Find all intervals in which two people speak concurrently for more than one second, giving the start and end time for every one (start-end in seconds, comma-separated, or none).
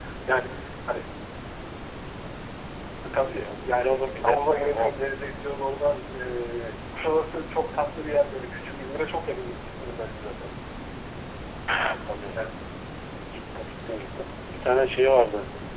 3.3-4.9